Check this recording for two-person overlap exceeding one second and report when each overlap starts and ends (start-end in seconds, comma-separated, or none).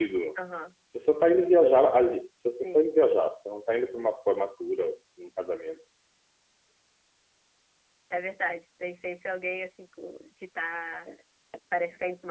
none